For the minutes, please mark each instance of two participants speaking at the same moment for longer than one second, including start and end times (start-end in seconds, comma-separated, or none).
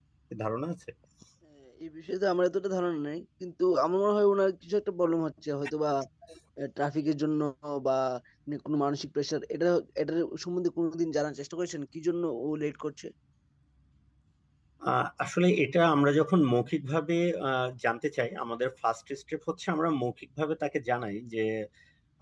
none